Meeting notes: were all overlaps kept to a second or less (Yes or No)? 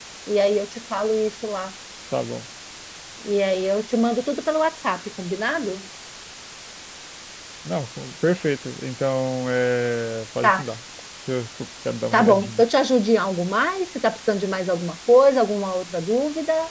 Yes